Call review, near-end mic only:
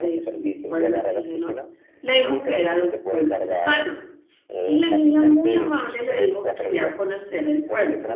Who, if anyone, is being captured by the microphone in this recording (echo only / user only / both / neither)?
both